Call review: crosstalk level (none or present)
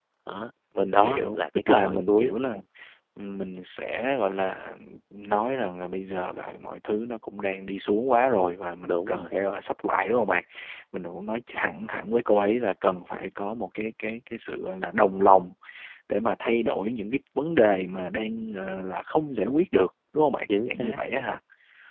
present